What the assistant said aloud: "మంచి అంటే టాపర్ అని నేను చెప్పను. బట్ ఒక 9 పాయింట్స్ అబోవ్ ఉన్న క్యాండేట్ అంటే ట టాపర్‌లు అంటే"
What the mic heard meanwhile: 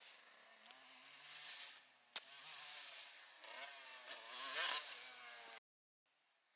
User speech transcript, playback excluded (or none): none